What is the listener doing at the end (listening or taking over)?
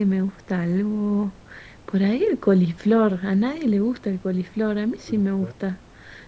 listening